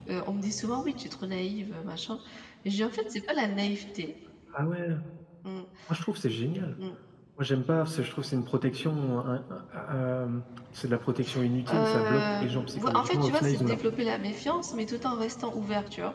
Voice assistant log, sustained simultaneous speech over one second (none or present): present